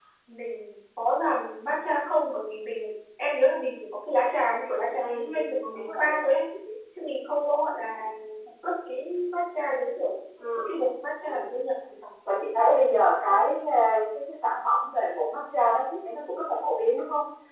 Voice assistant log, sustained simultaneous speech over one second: present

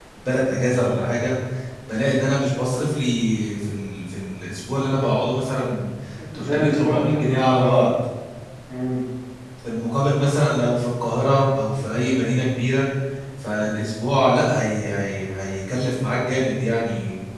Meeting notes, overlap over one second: present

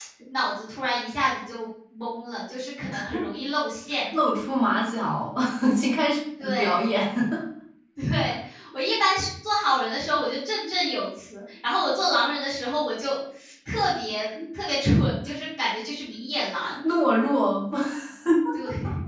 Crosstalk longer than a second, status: none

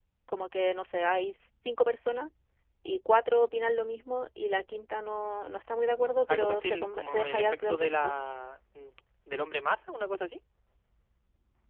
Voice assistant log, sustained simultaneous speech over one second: present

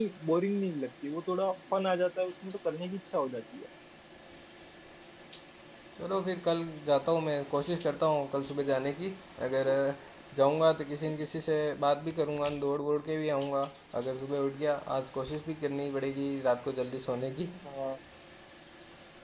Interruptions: none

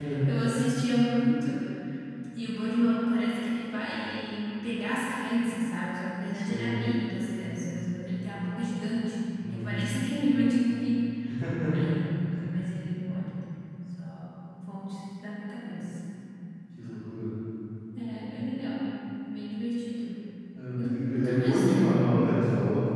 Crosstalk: present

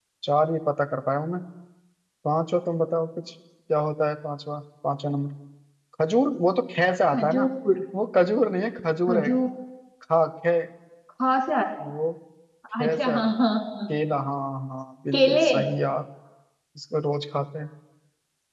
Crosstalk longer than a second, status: none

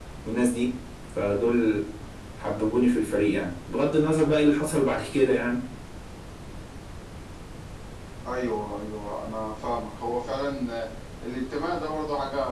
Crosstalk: none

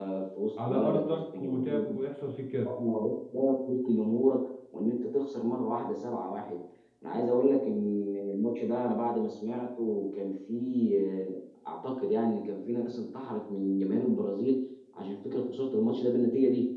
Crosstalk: present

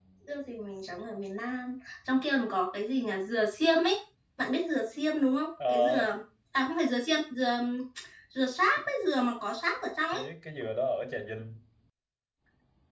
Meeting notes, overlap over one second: none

